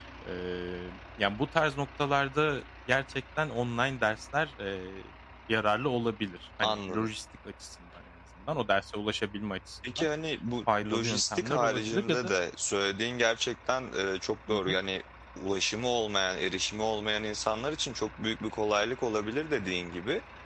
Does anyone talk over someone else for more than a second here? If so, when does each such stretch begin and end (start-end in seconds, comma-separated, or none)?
10.8-12.3